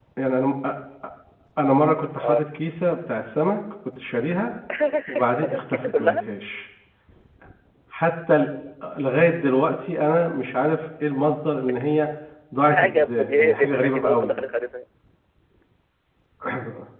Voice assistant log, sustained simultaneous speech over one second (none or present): present